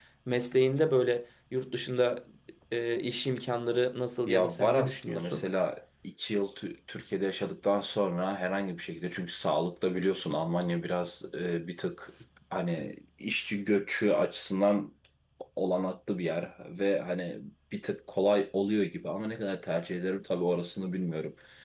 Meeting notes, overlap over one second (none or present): present